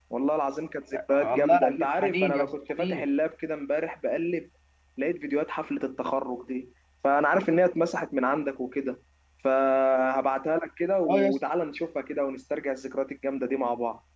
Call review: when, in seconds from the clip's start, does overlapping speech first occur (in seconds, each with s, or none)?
1.2 s